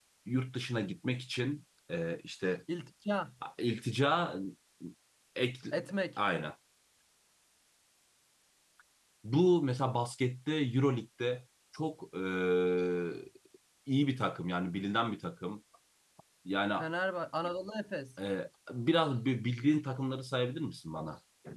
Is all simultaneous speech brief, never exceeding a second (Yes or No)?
Yes